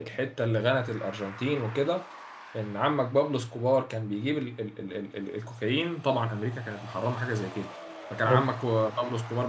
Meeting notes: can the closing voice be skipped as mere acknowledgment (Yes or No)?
Yes